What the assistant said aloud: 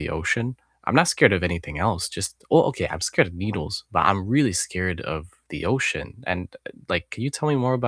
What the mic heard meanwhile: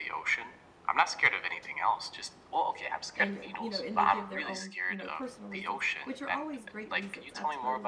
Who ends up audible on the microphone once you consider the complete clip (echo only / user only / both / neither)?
both